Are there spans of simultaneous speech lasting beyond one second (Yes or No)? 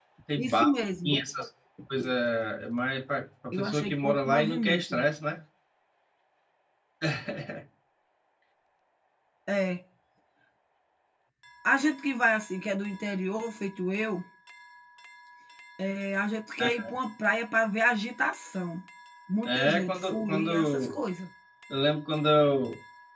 Yes